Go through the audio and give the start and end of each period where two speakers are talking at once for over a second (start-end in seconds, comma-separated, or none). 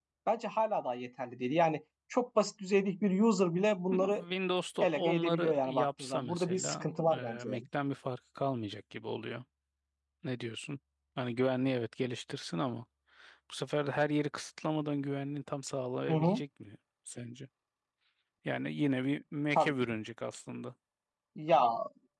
4.8-7.6